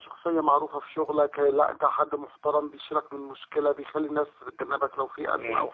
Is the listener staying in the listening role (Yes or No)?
No